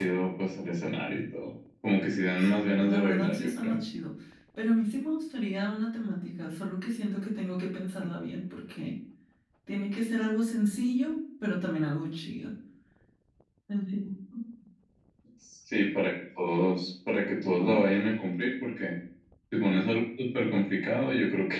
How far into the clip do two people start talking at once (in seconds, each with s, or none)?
2.4 s